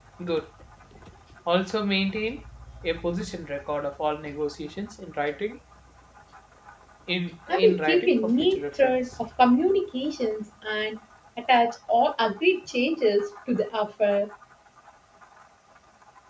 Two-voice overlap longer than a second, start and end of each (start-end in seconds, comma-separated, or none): 7.5-9.0